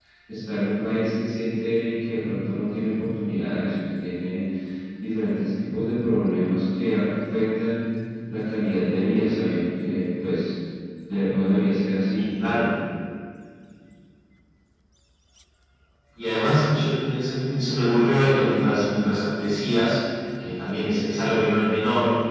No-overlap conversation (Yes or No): Yes